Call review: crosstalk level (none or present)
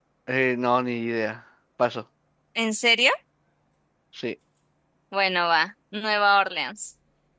none